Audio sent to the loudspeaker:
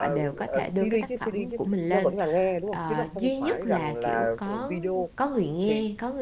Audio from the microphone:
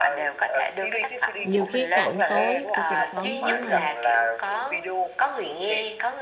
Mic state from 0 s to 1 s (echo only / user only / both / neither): echo only